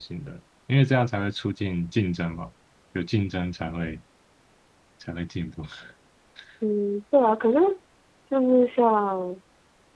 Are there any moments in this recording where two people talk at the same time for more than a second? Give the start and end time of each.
none

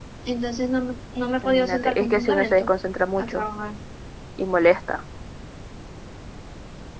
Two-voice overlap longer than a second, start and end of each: 1.4-2.7

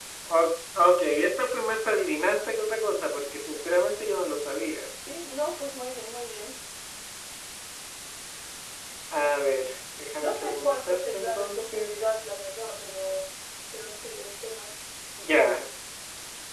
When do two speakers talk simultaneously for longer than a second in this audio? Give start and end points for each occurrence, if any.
10.2-11.9

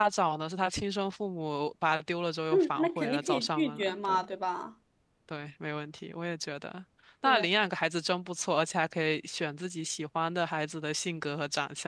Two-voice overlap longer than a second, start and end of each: 2.5-4.2

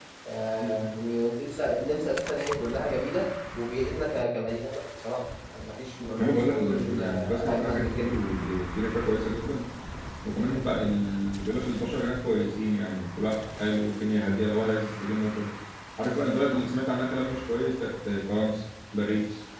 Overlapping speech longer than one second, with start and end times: 6.2-8.1

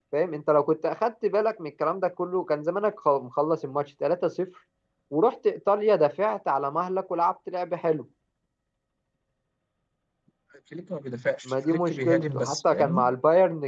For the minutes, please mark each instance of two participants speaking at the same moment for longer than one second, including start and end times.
11.5-13.1

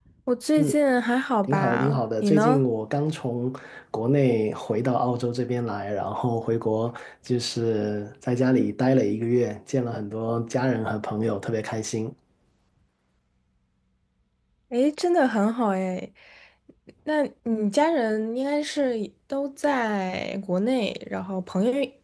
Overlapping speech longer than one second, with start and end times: 1.4-2.6

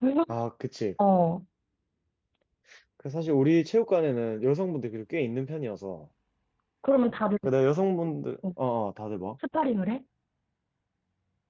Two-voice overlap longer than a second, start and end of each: none

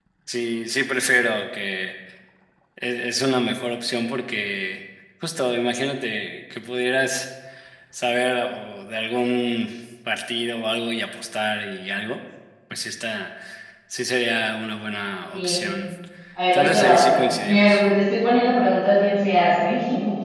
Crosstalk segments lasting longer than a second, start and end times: 16.5-17.8

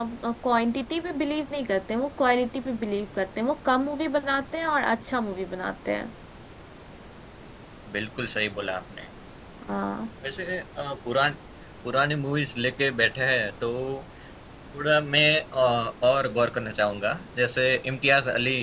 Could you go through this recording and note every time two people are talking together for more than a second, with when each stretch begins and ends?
none

